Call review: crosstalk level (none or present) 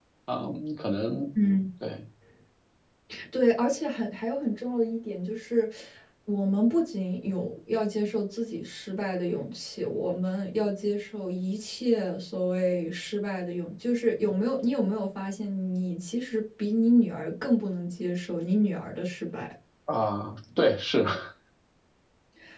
none